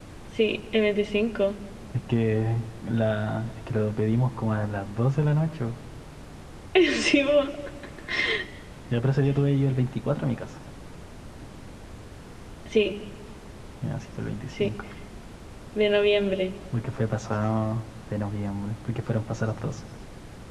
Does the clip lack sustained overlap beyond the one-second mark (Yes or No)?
Yes